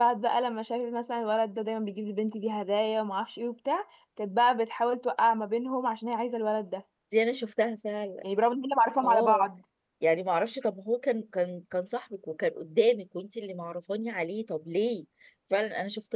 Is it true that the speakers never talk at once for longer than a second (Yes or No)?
Yes